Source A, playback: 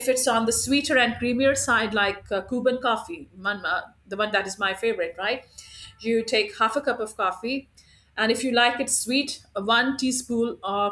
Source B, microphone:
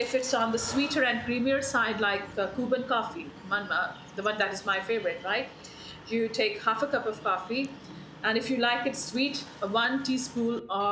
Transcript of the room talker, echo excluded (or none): none